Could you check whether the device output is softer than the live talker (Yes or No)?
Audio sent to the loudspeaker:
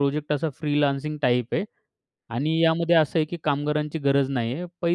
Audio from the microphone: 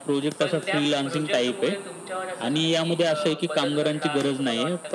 No